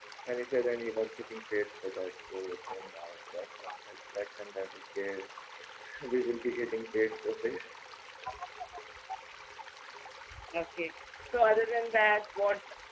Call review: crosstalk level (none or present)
none